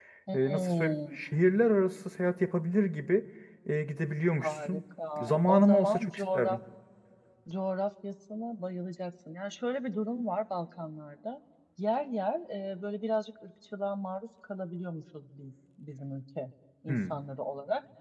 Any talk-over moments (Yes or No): Yes